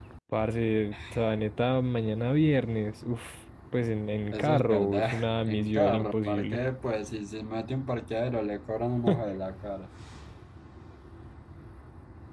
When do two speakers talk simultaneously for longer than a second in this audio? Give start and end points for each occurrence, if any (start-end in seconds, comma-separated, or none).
4.3-6.6